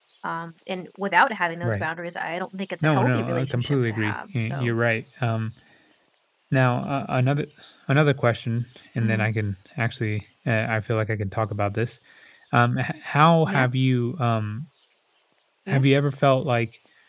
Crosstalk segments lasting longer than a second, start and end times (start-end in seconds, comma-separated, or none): 2.8-4.7